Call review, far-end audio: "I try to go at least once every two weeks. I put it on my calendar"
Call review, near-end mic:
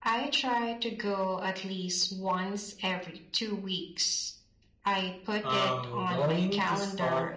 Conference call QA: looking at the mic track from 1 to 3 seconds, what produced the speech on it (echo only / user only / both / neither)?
echo only